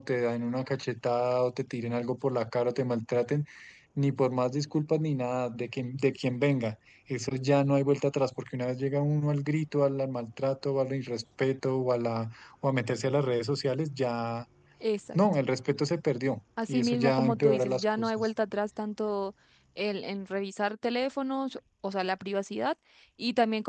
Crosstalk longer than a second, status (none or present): present